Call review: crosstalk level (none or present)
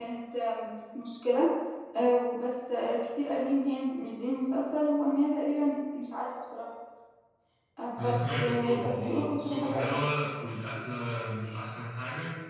present